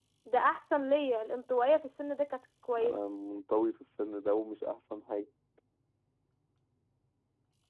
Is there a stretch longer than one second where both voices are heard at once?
No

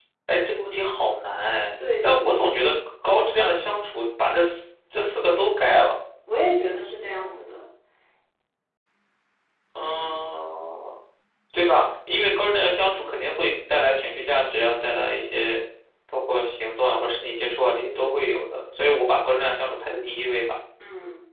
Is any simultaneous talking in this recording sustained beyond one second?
No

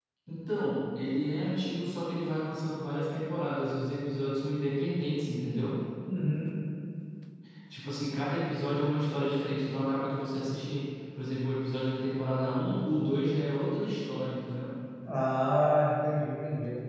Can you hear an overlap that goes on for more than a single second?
No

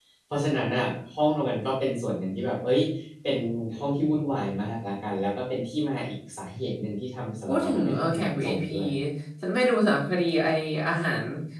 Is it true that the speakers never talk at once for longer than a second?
No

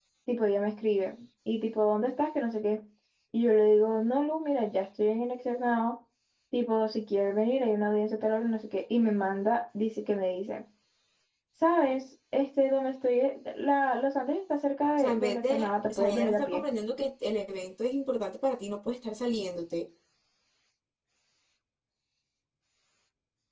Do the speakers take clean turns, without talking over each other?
No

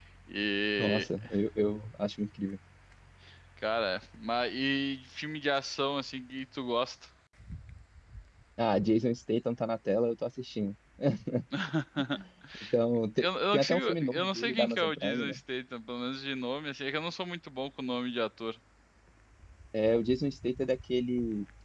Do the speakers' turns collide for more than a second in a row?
Yes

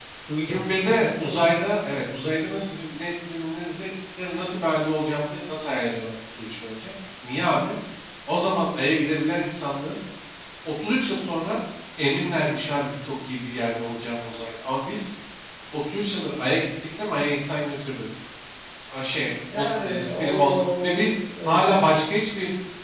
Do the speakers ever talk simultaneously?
Yes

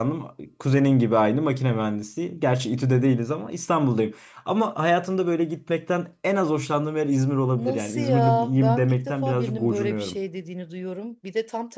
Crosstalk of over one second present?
Yes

